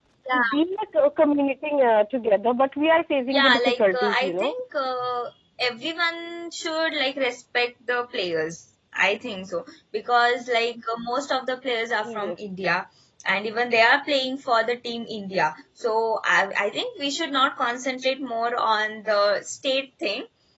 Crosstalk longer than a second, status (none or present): present